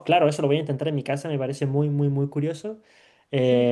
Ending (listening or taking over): taking over